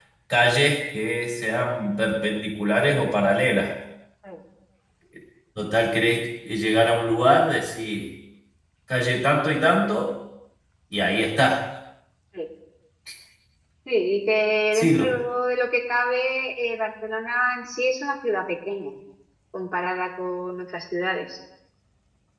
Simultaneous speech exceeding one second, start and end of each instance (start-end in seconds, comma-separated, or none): none